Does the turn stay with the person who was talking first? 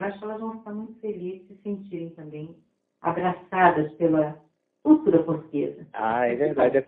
No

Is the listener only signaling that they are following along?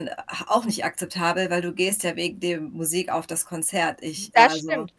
No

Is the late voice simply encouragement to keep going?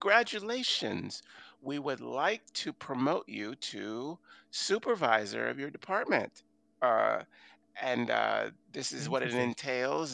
Yes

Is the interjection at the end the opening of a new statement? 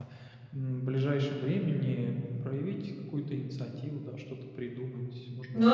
Yes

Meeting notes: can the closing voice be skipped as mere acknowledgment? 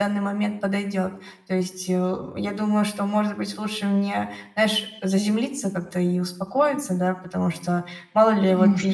Yes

